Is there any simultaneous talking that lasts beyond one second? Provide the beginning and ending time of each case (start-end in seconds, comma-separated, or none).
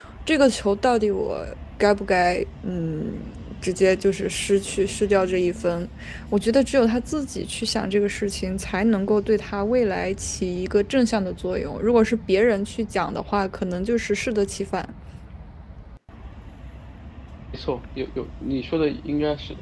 none